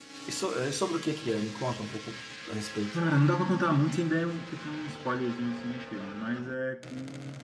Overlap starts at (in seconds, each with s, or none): none